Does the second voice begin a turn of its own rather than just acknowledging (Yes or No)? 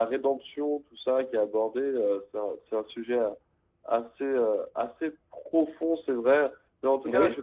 No